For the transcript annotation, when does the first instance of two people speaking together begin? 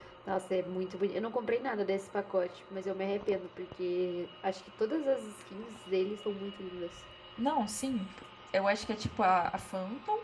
none

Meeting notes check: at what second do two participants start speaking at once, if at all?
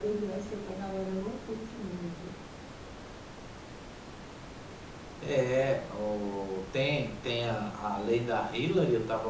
none

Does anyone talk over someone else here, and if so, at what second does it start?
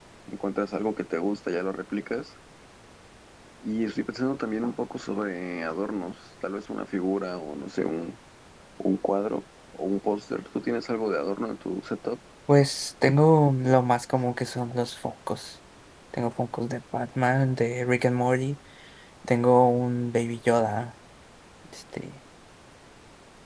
none

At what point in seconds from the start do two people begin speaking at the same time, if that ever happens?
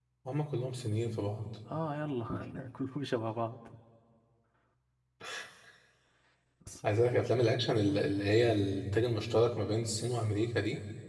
none

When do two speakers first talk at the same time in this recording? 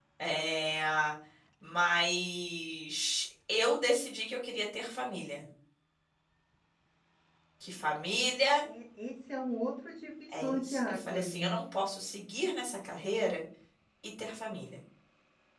10 s

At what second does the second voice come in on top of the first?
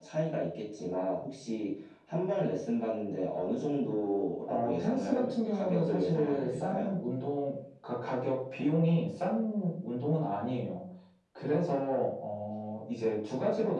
4 s

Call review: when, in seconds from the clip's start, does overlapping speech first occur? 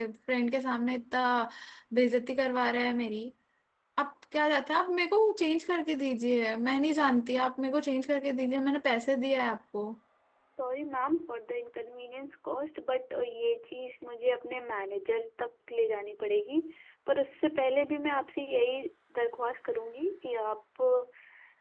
none

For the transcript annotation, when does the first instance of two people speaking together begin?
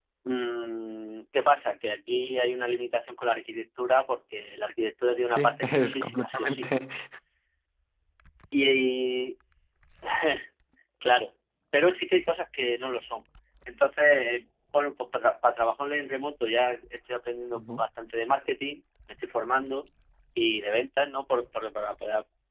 5 s

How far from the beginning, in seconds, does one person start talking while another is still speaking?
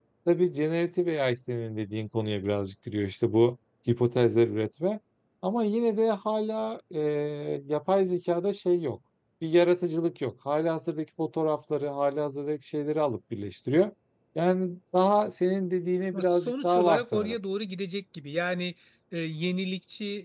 16 s

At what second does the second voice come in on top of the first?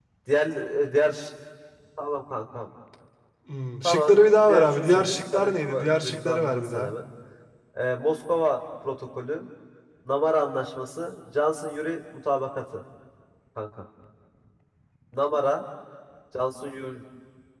4 s

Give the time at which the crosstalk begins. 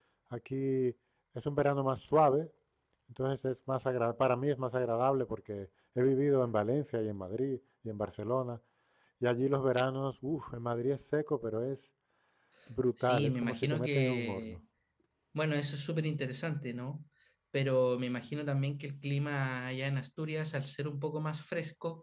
13 s

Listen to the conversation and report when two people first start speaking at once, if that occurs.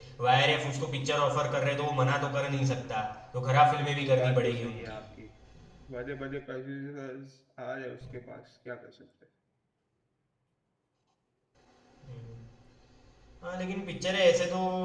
4 s

